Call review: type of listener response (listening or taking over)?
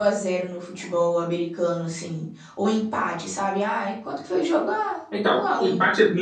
taking over